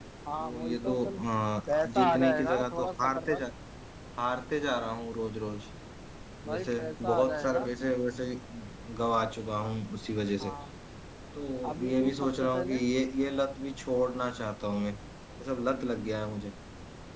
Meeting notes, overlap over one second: present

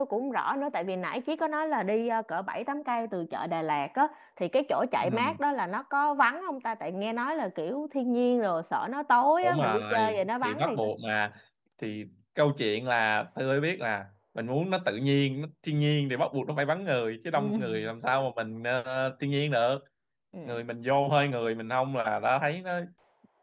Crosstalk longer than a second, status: present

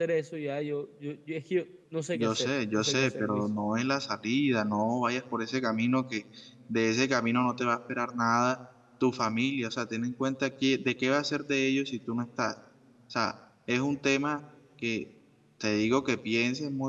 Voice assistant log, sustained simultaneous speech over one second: present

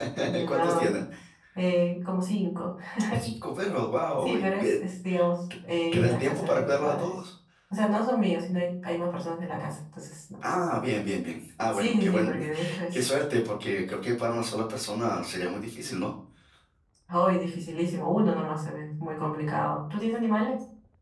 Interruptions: present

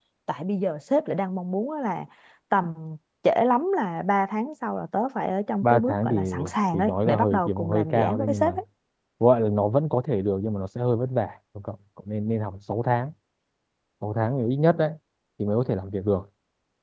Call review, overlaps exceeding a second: present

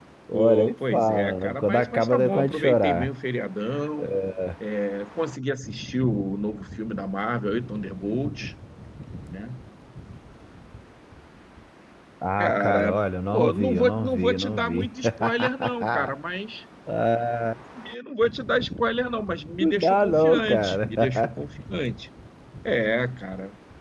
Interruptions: present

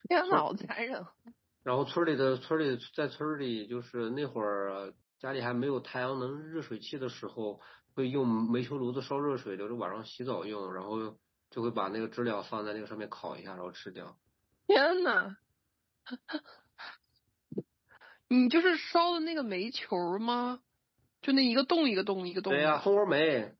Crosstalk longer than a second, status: none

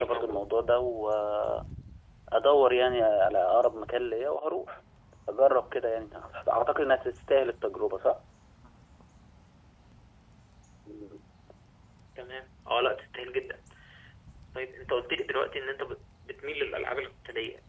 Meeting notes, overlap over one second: none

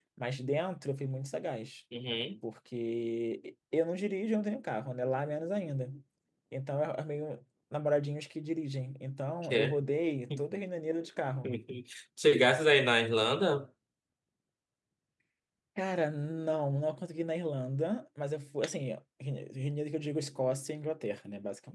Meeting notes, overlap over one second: none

